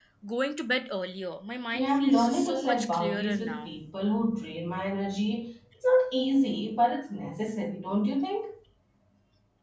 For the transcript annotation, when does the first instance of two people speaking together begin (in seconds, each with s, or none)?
1.7 s